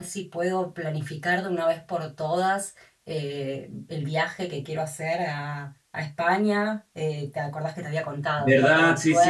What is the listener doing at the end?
taking over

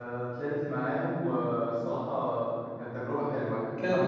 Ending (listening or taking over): listening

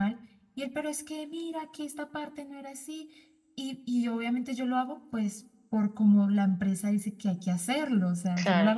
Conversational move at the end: listening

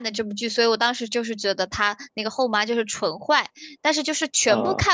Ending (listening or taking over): listening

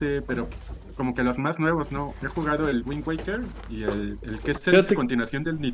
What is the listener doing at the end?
listening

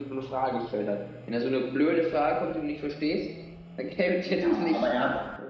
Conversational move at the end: taking over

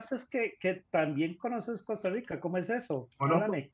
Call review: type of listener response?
taking over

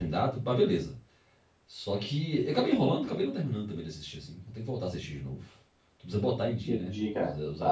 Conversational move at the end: taking over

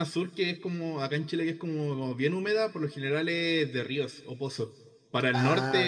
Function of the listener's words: listening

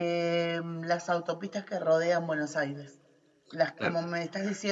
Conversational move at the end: listening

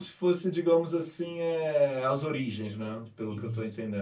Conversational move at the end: taking over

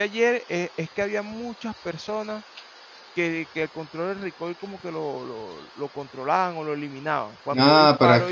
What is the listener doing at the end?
taking over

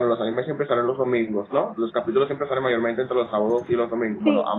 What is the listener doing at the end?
listening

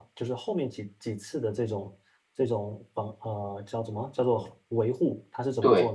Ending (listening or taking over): listening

